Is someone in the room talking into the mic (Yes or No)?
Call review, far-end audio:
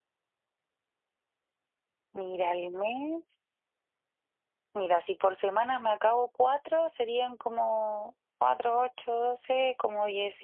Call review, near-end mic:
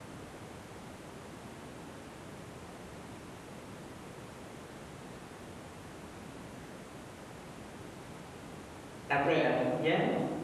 Yes